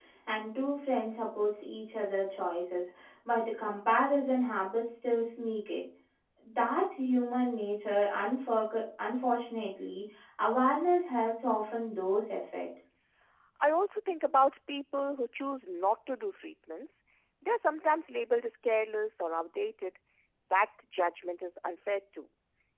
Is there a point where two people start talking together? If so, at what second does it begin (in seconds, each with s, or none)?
none